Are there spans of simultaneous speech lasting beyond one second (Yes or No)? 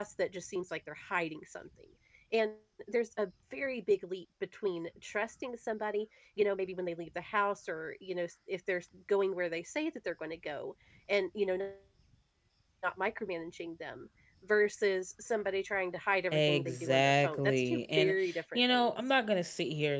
Yes